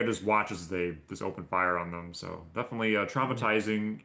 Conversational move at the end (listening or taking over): listening